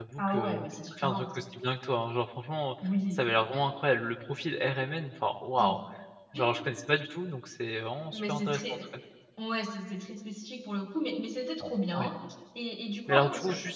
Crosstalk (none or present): present